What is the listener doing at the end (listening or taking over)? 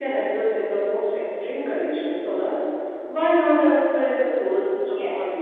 taking over